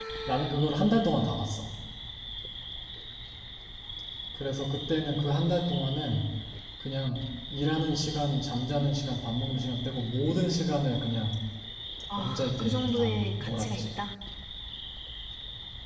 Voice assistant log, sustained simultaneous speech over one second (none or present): present